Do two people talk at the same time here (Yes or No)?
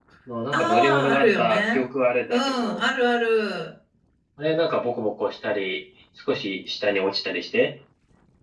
Yes